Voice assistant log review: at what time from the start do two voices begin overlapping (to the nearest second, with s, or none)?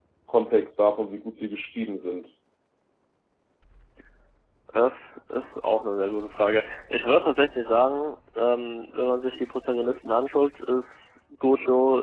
none